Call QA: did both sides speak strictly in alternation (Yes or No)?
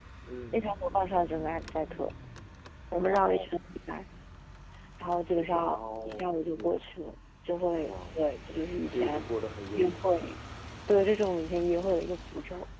No